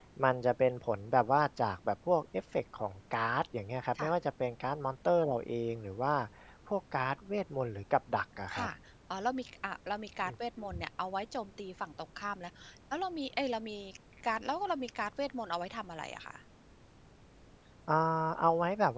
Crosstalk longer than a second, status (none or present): none